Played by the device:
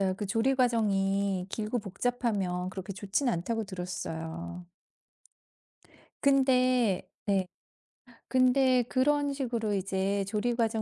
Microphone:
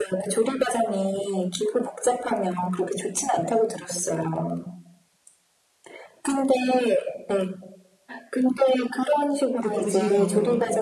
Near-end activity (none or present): present